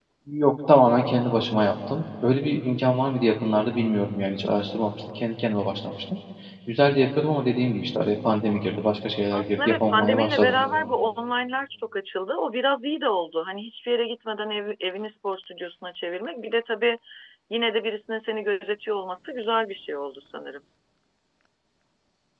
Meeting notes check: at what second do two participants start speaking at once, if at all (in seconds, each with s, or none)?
9.3 s